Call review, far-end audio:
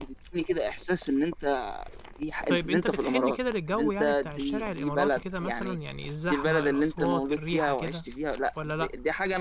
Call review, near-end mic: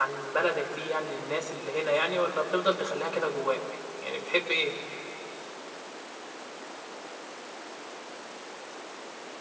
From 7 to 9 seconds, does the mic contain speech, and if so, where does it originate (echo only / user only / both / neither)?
neither